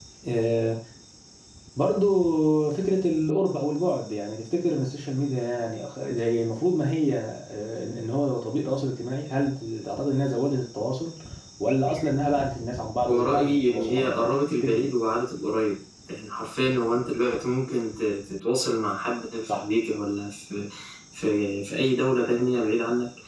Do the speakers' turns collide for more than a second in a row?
Yes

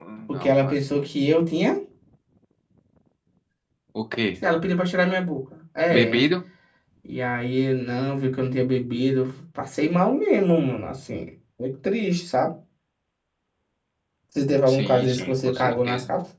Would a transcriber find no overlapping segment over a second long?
No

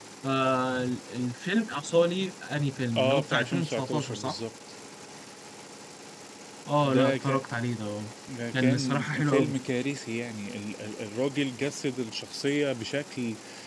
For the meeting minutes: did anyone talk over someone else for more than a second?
Yes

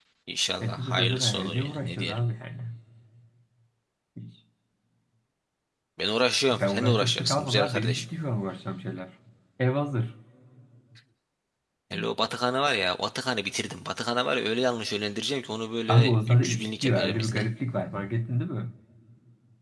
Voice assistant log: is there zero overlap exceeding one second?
No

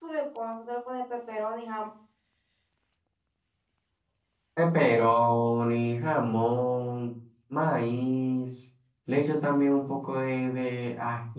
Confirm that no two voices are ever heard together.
Yes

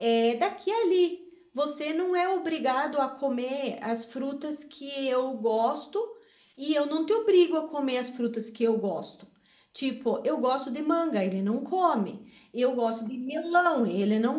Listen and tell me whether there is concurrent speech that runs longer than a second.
No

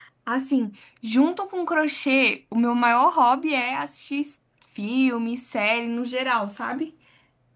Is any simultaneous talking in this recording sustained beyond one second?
No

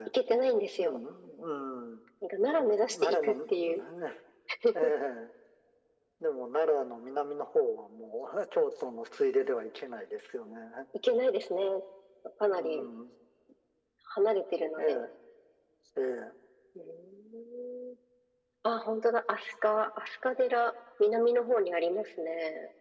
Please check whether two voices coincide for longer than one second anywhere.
Yes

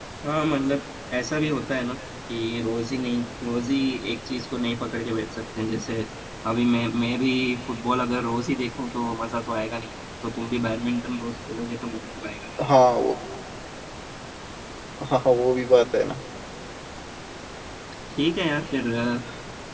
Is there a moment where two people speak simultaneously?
No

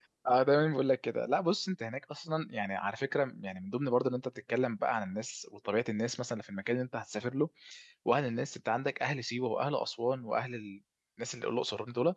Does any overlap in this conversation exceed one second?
No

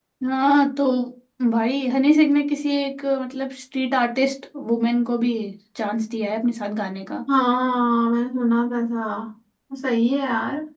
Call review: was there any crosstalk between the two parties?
No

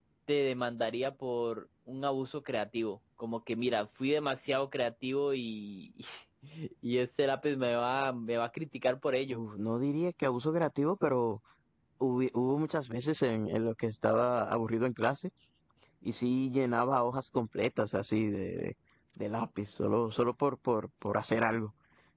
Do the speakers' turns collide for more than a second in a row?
No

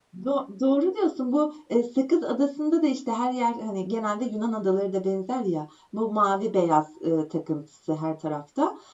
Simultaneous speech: No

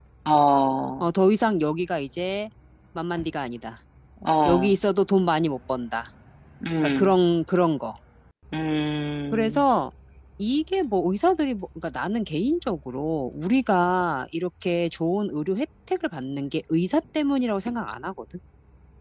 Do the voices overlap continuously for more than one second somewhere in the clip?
No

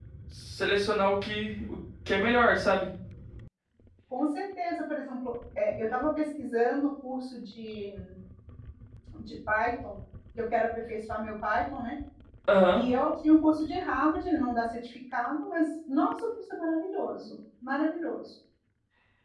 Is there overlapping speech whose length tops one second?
No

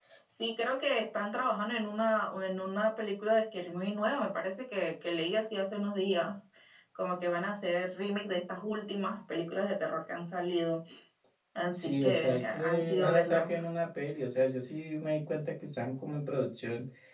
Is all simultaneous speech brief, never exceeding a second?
No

